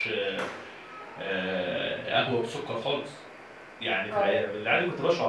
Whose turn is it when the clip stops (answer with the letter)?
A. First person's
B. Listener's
A